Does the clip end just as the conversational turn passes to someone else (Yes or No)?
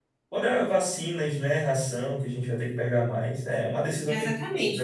Yes